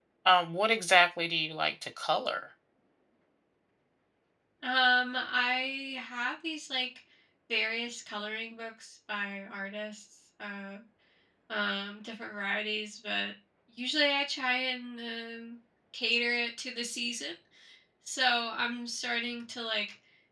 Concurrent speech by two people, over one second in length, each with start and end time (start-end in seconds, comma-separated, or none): none